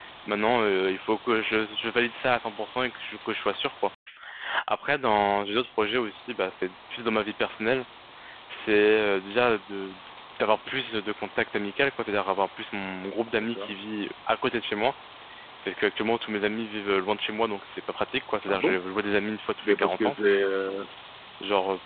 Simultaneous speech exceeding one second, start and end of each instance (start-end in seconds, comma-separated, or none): none